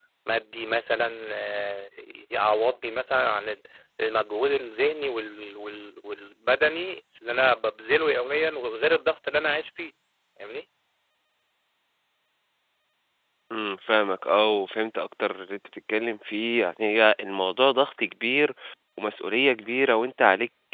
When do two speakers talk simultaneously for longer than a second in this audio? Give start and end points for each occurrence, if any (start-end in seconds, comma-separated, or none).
none